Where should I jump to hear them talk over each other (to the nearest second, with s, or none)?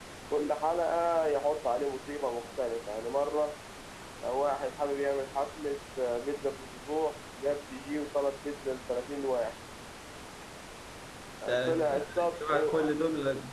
12 s